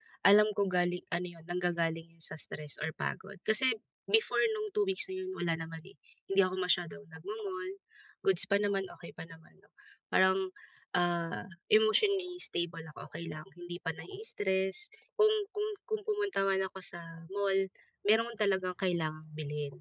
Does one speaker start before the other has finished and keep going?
No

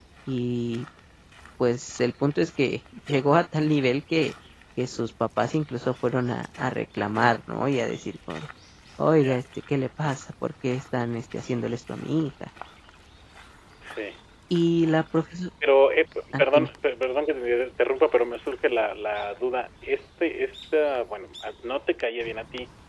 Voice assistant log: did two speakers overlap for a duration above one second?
No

